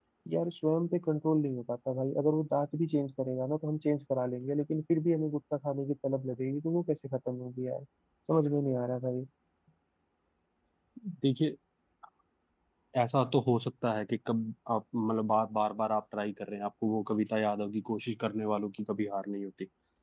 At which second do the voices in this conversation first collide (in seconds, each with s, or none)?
none